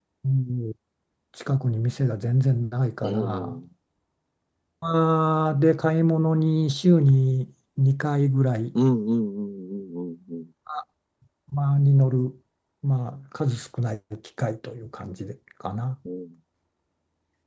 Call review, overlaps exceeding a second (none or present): none